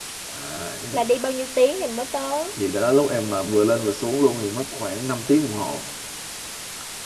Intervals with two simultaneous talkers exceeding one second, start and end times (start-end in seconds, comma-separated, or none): none